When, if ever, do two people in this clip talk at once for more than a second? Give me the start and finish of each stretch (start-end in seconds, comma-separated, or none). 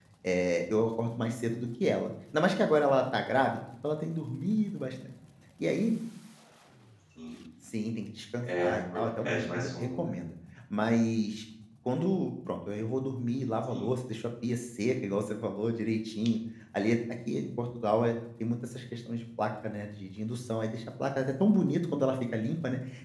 8.4-10.1